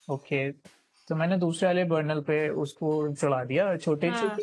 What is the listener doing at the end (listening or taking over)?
listening